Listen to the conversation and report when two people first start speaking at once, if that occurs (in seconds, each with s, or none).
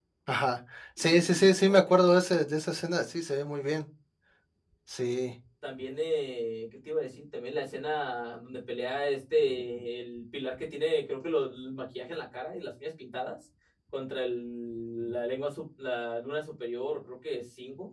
1.0 s